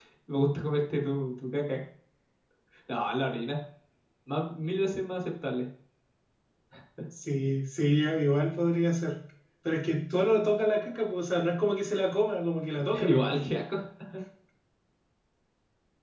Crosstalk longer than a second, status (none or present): none